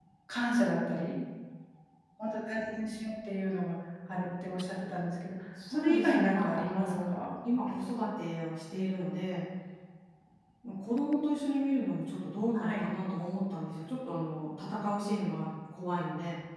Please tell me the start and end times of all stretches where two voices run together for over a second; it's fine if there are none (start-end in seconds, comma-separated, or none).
5.7-7.2